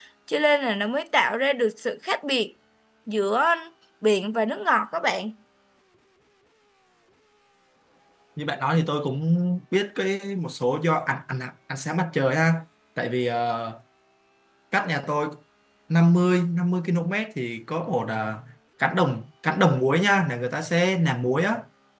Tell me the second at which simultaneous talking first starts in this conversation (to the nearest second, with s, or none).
none